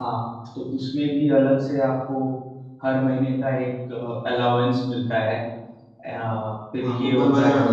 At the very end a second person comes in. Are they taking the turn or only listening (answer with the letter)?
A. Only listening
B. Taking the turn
B